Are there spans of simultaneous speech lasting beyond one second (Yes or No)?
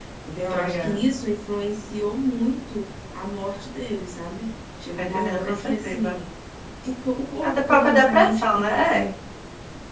Yes